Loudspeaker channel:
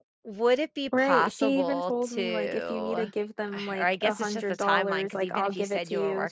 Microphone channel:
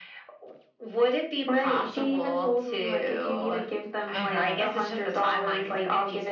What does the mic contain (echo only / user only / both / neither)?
both